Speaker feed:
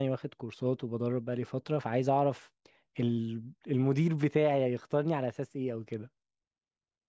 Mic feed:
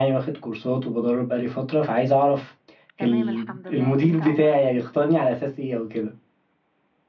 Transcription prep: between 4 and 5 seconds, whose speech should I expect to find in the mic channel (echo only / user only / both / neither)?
both